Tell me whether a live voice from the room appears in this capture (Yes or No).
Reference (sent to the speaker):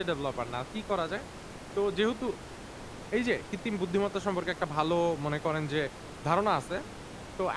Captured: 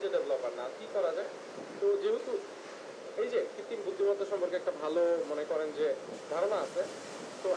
No